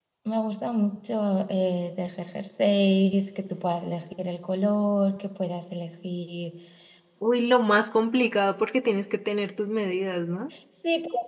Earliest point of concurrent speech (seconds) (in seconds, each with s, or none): none